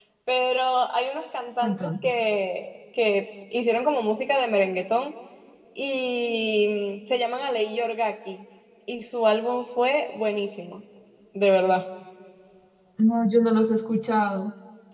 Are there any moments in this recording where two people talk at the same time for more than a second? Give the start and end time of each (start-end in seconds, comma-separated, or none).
none